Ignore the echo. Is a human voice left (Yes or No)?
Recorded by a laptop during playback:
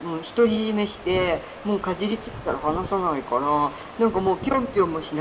No